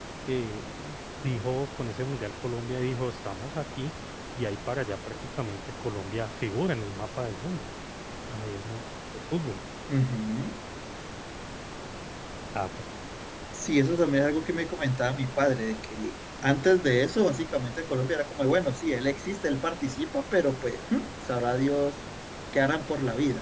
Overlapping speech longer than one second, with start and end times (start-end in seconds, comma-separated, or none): none